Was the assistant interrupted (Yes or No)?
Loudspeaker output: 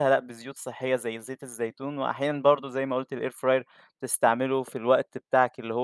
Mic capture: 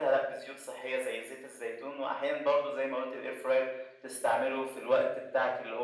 No